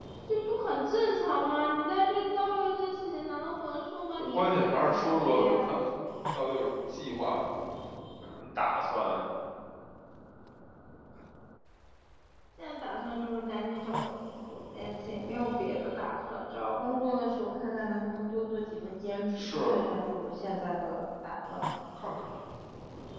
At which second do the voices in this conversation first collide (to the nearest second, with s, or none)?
4 s